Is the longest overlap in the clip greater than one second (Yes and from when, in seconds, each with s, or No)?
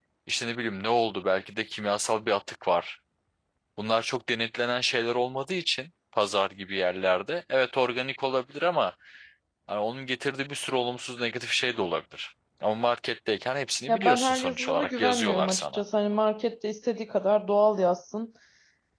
Yes, from 13.9 s